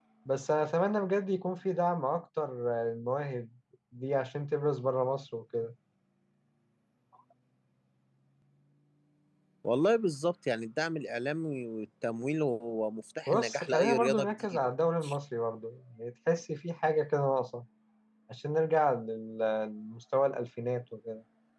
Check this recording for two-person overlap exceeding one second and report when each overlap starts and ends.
13.3-14.6

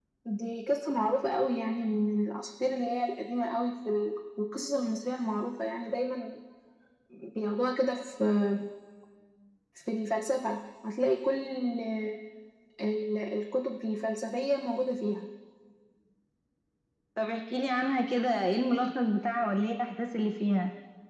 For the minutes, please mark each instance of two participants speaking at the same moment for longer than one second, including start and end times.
none

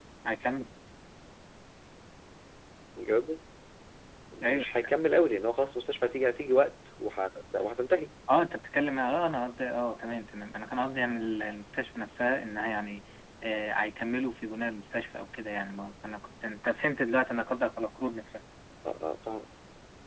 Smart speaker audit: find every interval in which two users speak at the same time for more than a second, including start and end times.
none

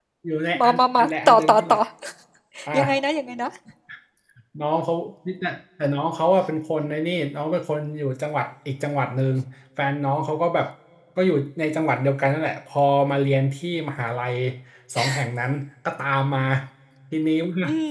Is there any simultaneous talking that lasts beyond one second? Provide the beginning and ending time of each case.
0.6-1.8

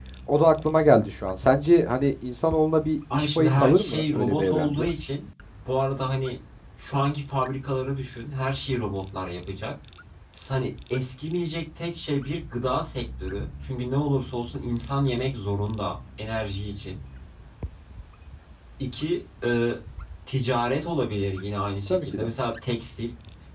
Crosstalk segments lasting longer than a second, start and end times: 3.1-4.9

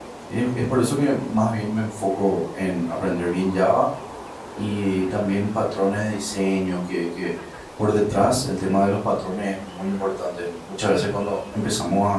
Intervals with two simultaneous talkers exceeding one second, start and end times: none

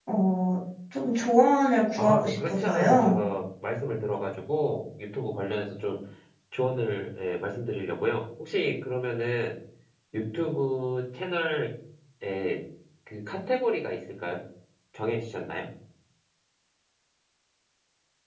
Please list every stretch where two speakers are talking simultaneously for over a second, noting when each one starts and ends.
2.0-3.2

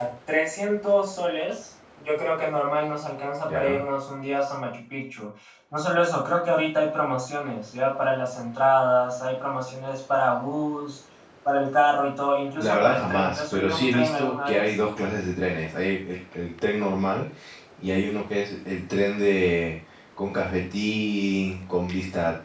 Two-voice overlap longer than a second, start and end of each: 12.6-14.7

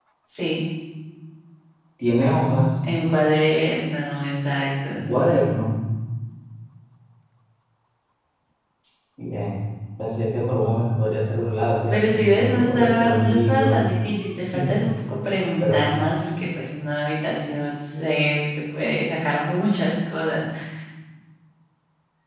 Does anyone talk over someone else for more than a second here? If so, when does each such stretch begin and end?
11.9-13.9

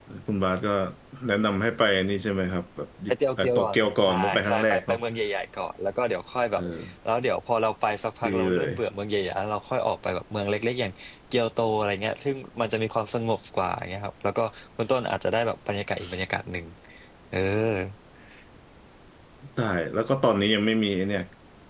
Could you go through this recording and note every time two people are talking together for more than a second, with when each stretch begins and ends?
3.1-5.0

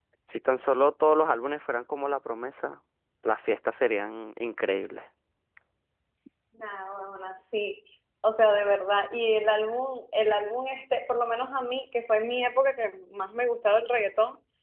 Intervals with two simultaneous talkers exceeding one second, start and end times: none

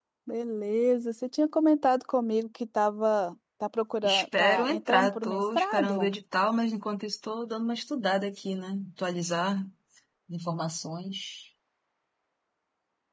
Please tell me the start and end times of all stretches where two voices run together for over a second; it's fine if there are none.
4.0-6.1

